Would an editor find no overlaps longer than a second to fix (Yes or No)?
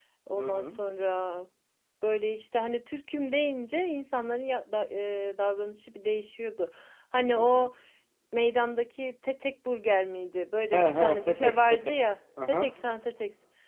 No